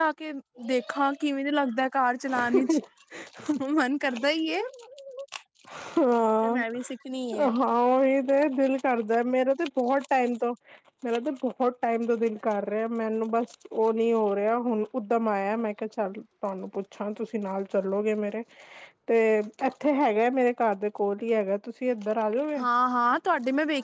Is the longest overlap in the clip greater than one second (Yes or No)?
No